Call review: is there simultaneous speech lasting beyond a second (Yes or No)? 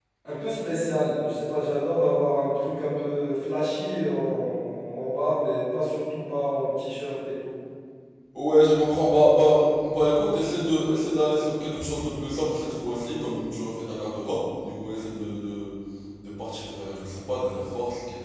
No